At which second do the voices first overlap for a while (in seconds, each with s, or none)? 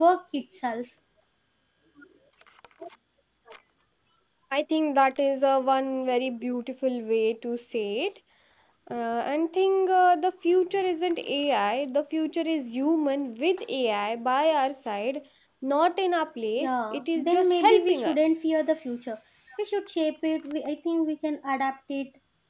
16.6 s